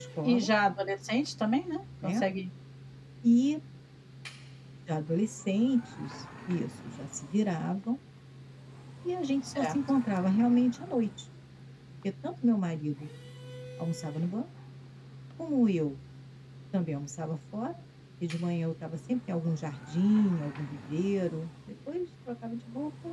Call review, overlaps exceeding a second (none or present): none